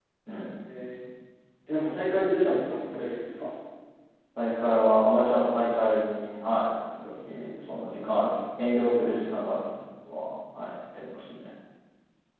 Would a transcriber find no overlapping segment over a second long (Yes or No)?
Yes